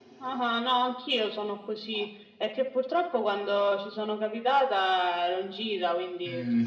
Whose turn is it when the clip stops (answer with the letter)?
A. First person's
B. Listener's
B